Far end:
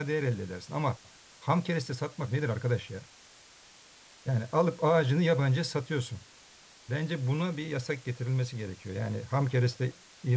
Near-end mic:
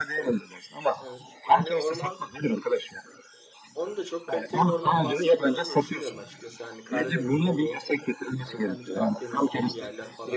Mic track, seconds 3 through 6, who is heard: both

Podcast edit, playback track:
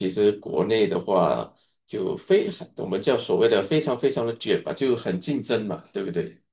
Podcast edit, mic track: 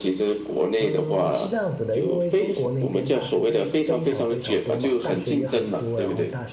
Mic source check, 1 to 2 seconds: both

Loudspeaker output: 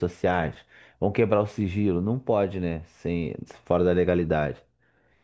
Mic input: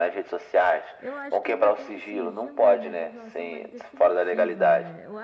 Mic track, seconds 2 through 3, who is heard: both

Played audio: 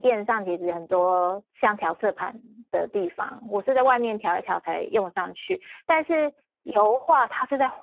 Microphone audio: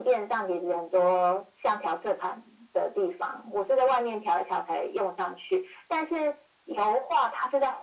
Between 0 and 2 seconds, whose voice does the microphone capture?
echo only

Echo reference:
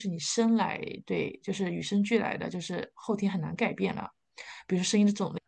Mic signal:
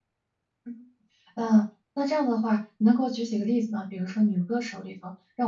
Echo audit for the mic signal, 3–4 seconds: user only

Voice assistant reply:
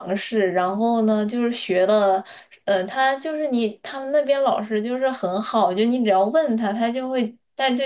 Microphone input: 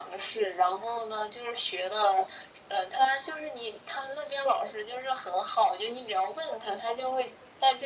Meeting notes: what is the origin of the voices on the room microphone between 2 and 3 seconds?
echo only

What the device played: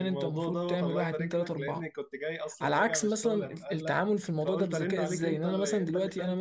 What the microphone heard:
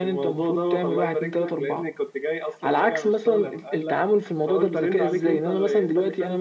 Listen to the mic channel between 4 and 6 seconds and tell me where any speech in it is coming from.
echo only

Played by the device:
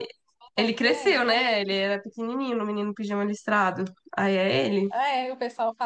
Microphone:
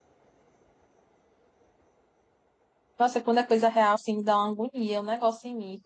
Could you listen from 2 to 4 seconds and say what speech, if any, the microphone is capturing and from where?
user only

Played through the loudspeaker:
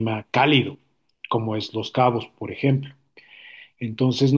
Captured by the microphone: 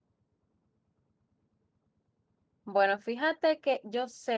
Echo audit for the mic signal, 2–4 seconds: user only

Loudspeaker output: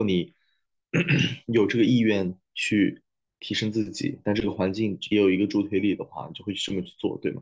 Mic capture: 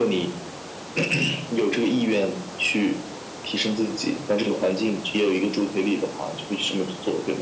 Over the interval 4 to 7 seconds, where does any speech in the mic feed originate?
echo only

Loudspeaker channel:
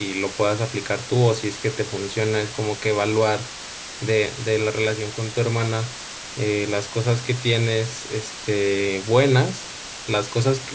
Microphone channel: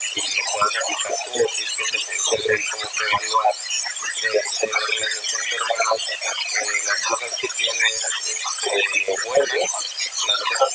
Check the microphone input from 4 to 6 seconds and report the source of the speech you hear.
echo only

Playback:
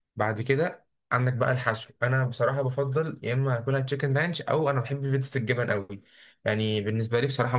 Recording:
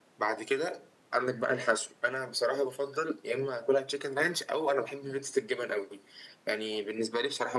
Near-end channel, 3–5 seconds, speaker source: echo only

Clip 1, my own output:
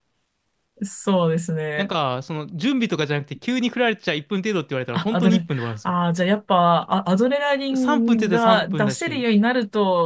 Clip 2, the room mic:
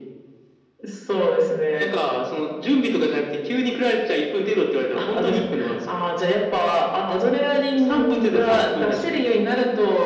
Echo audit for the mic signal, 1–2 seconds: echo only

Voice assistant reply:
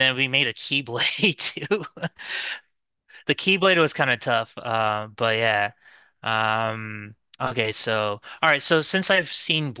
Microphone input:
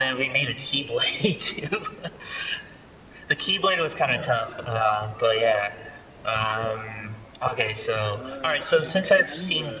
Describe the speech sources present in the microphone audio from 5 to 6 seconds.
echo only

